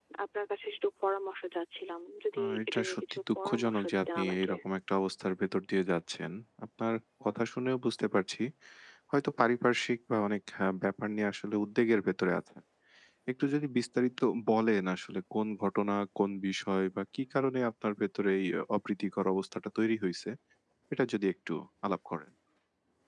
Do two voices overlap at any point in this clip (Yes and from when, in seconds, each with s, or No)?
Yes, from 2.4 s